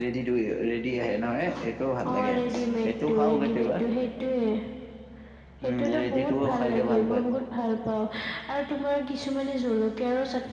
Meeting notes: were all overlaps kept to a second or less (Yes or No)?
No